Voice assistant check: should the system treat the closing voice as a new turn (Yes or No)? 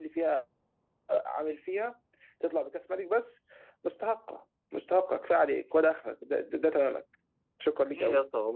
Yes